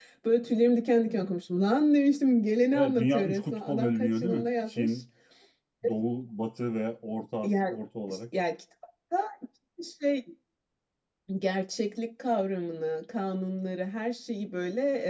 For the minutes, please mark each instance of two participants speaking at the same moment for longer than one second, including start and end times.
2.7-5.0

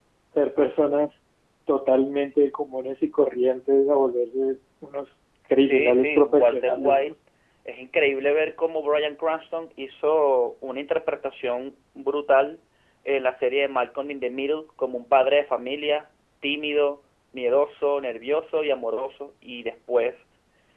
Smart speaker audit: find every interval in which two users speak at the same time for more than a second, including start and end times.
5.5-7.1

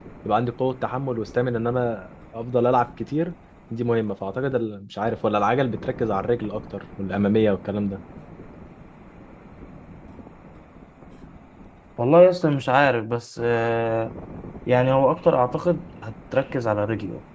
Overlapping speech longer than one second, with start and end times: none

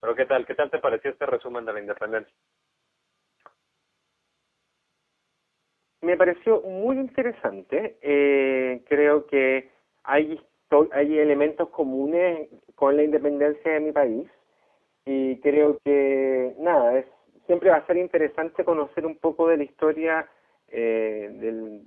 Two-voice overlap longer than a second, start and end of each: none

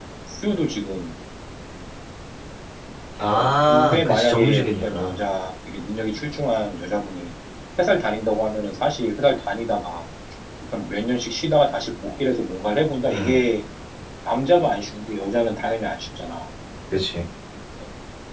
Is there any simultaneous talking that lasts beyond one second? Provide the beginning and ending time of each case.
3.3-5.2

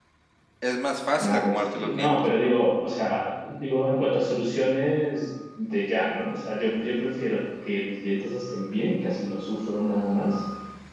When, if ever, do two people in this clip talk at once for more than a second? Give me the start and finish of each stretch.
1.2-2.5

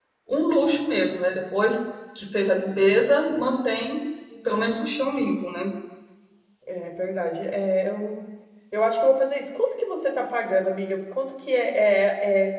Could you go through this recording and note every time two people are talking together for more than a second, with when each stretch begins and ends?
none

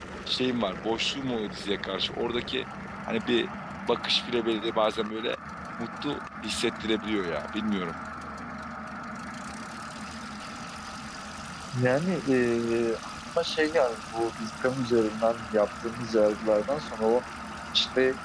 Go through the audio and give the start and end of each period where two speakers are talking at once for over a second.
none

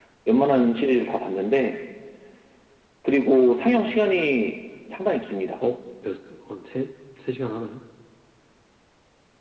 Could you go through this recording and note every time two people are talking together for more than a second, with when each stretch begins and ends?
none

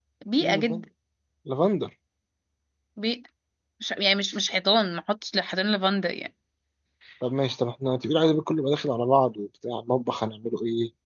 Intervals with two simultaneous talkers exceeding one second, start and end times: none

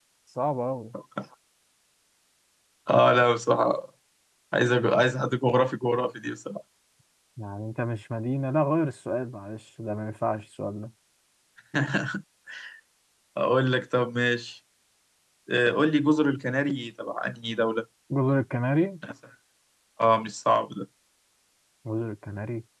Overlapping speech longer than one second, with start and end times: none

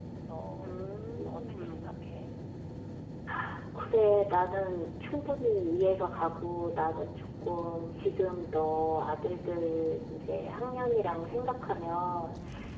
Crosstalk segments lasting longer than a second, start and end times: 0.6-1.9

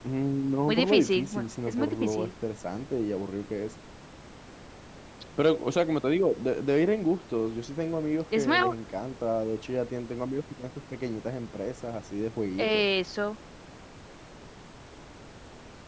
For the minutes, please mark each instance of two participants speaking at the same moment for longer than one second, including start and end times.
0.7-2.3

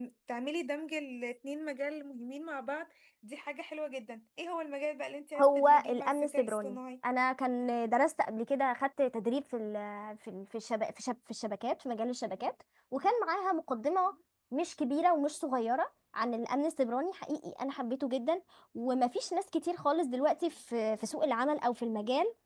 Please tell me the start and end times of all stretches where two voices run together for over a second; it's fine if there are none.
5.4-6.8

